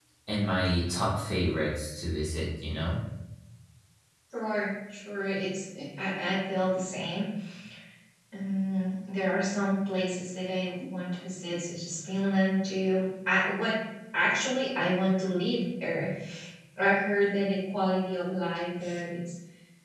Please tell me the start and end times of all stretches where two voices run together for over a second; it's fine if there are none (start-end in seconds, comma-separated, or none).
none